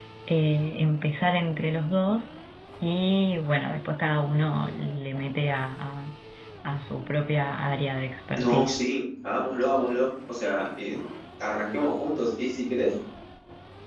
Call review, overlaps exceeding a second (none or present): none